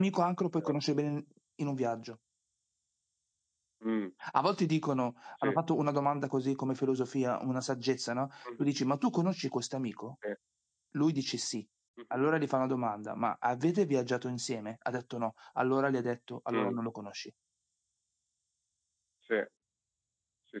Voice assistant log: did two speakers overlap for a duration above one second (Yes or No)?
No